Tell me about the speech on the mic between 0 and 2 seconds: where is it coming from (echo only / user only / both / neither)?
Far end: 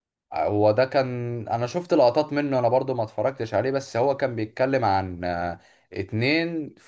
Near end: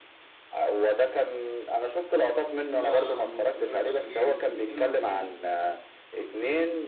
echo only